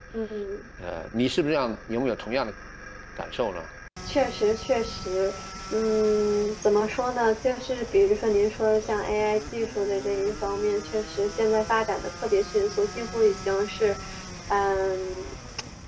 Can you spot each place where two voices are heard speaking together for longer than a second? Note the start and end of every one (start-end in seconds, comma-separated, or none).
none